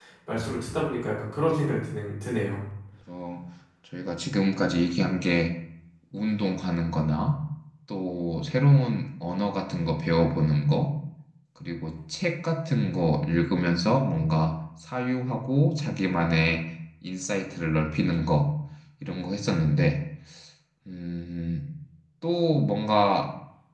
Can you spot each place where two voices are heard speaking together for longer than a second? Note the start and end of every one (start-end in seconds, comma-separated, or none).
none